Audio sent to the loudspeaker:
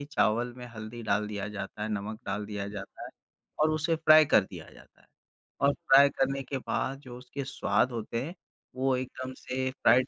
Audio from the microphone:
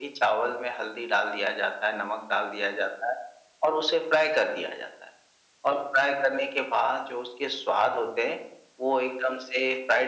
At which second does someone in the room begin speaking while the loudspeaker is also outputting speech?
none

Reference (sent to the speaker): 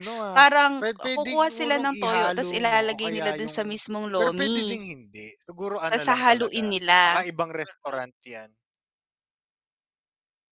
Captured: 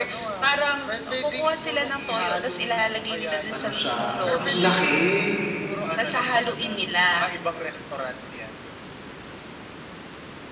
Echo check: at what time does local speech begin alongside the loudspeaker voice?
3 s

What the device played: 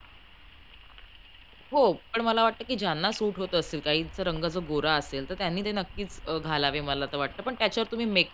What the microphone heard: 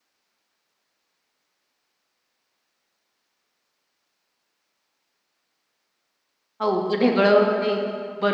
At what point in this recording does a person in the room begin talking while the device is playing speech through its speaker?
7 s

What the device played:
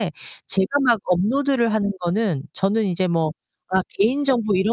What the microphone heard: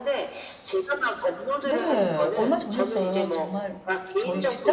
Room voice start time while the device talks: 2 s

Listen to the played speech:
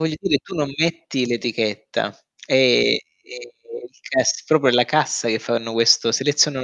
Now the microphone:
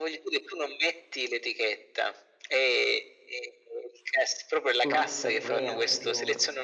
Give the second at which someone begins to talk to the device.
5 s

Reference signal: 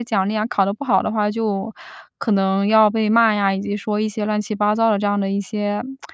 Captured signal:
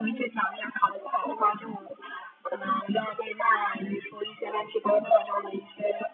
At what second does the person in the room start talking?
none

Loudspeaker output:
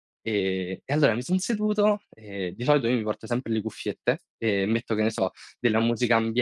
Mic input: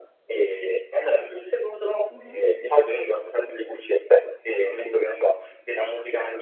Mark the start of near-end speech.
2 s

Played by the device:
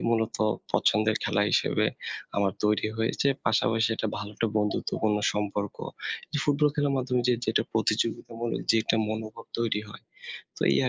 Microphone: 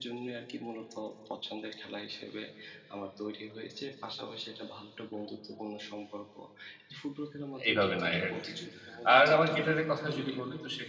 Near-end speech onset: 8 s

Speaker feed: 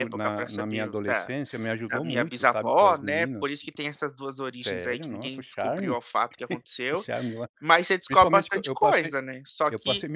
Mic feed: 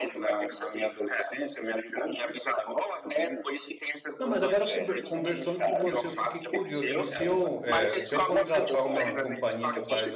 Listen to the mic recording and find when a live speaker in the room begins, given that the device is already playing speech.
4 s

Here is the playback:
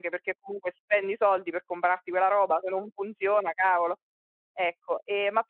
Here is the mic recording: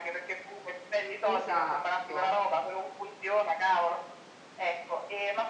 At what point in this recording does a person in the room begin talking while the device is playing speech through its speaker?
1 s

